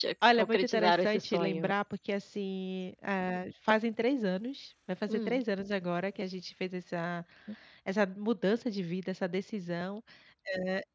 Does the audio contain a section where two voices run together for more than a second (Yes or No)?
Yes